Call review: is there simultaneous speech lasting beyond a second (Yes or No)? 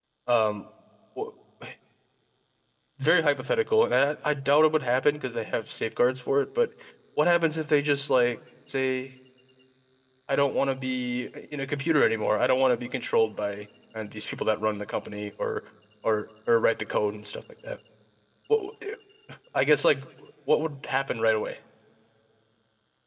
No